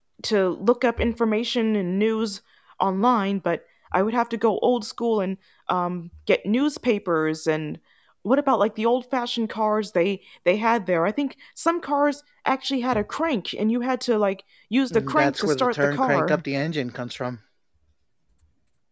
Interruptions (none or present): present